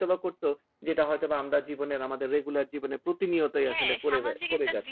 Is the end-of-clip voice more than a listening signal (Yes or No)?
Yes